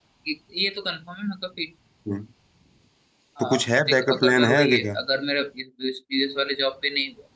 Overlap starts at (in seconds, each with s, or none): 3.4 s